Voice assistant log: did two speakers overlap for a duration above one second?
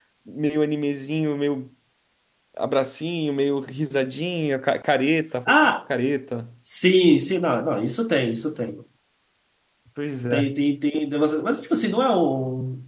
No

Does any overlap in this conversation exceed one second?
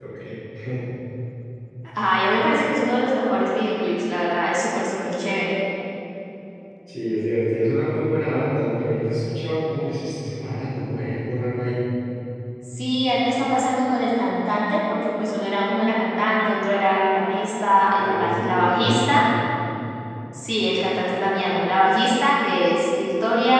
Yes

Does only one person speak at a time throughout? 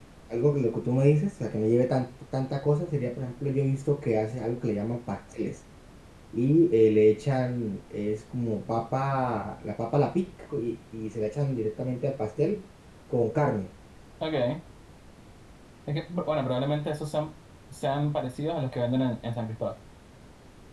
Yes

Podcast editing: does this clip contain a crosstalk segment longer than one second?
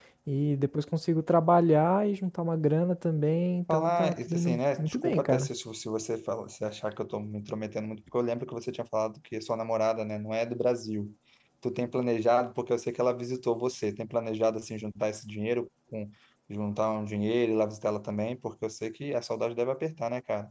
Yes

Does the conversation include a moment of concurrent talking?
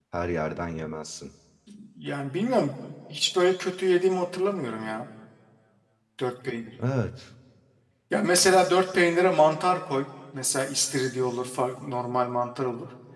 No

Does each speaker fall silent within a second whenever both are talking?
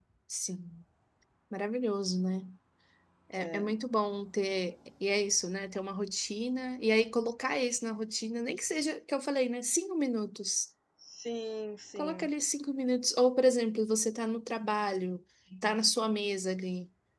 Yes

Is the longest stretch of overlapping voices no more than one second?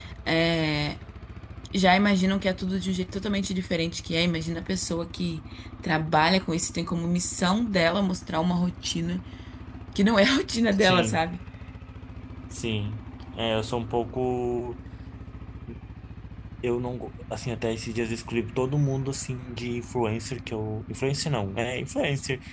Yes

